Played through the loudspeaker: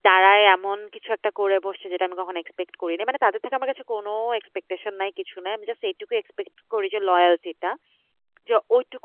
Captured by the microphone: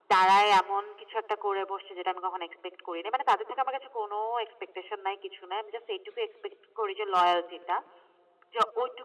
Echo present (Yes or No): Yes